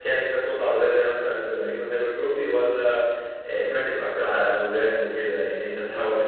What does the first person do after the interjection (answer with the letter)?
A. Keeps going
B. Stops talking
A